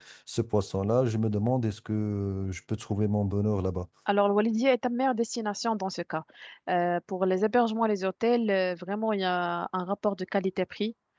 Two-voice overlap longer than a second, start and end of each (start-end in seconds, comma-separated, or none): none